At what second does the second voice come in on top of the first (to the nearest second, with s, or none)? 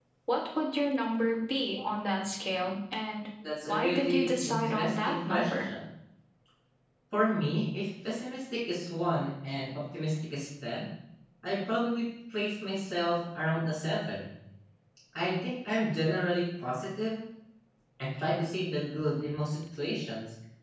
4 s